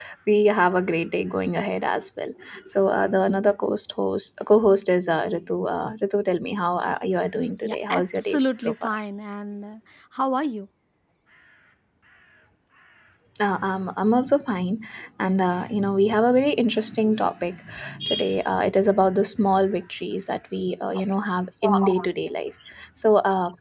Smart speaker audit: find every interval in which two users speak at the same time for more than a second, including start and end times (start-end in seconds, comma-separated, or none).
7.6-8.9